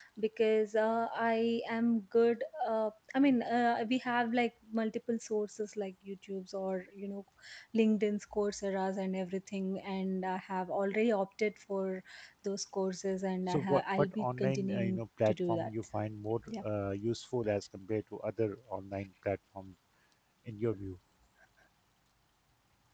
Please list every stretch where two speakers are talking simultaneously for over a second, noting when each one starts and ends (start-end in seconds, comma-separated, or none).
13.5-15.7